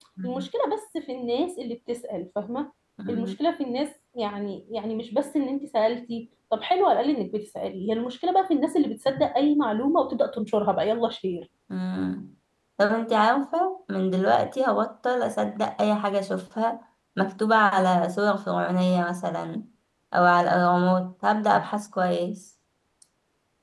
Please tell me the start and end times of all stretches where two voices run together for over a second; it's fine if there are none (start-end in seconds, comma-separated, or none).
none